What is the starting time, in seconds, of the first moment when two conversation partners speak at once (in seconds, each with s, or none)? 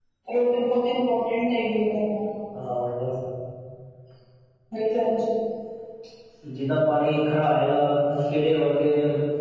none